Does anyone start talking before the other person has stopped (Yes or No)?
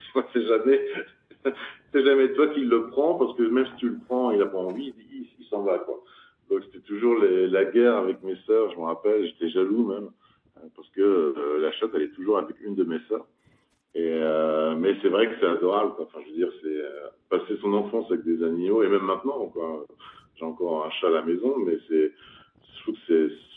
No